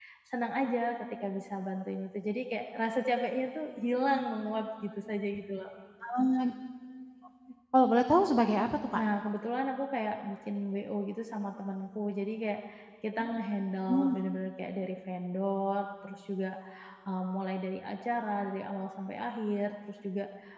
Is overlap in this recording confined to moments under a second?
Yes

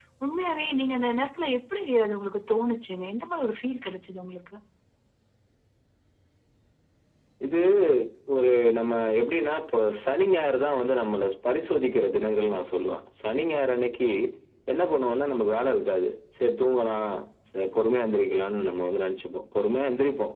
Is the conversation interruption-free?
Yes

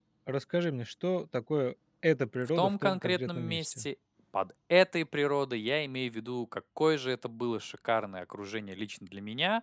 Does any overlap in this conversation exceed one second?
Yes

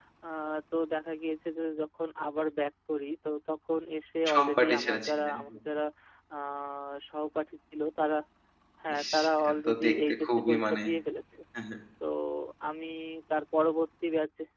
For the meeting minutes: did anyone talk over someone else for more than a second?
Yes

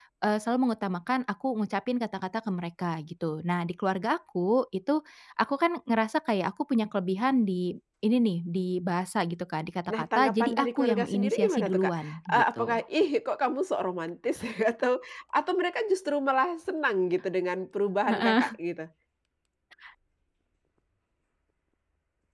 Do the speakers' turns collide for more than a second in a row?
Yes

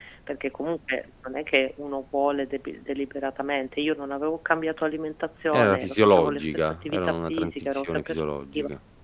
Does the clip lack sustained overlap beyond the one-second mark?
No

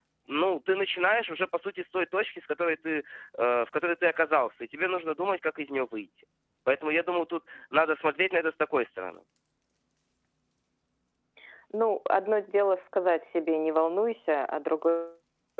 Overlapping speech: No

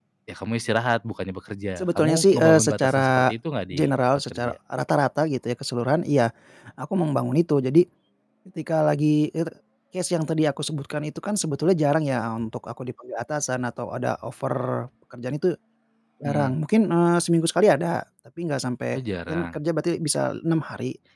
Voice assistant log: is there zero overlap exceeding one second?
No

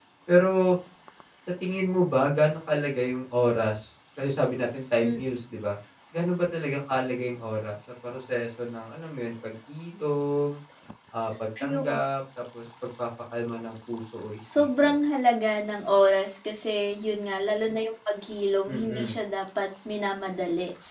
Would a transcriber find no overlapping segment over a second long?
Yes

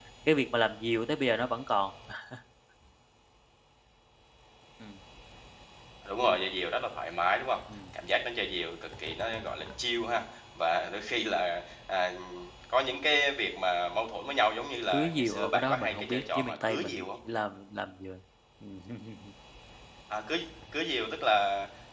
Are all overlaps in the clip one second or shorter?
No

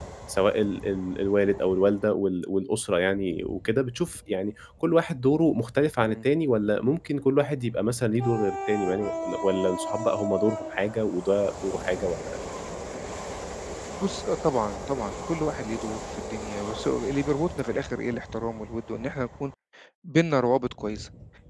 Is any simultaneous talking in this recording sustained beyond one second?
No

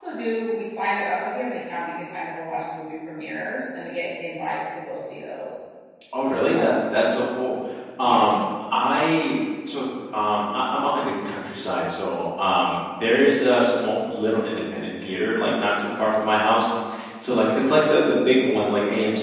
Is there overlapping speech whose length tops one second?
No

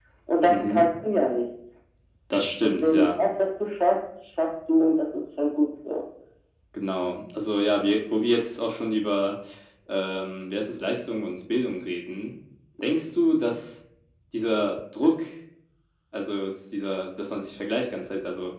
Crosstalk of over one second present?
No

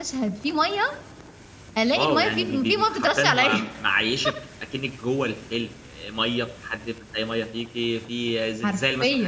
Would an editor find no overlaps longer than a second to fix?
No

